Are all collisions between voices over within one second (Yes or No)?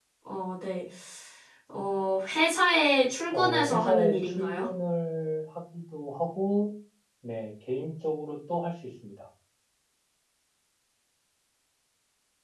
No